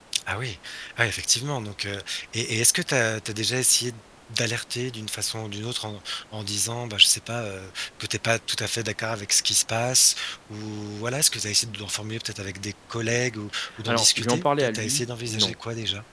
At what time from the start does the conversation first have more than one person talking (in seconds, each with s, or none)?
13.9 s